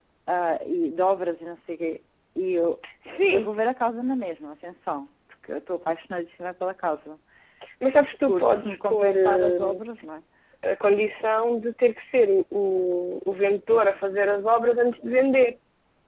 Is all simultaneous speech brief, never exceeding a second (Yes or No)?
No